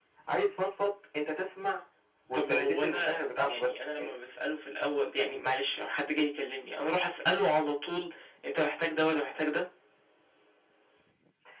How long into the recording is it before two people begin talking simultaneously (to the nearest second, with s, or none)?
2 s